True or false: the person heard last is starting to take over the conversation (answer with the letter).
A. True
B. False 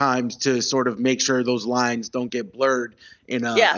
B